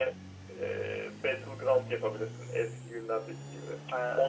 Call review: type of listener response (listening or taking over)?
listening